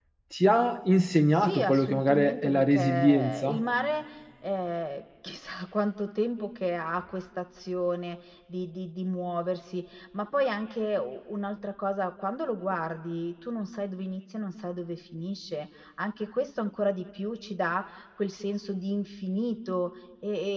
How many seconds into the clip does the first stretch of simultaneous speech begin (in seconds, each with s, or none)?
1.4 s